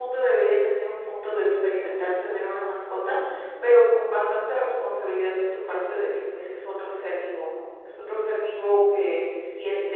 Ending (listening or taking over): listening